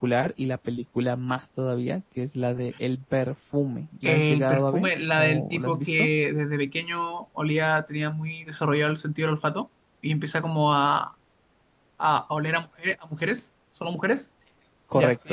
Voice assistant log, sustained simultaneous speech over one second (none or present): present